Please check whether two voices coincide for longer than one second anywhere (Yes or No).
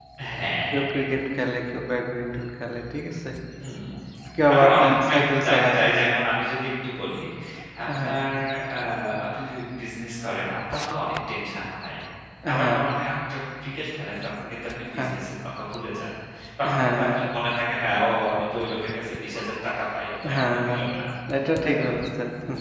Yes